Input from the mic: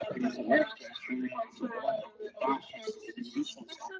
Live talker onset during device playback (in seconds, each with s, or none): none